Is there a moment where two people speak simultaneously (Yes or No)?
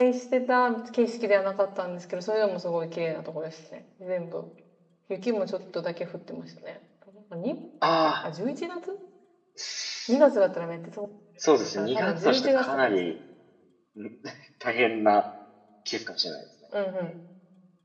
Yes